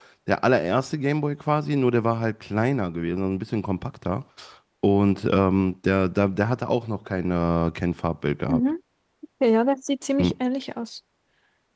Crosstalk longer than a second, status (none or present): none